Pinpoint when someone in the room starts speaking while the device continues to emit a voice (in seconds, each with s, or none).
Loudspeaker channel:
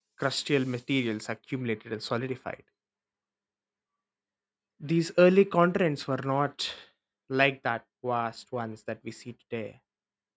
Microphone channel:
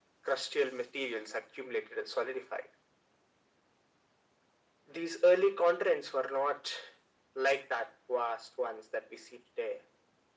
none